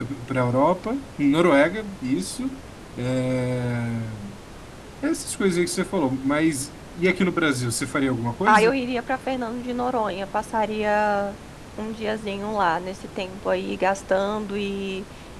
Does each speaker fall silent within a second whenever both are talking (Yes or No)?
Yes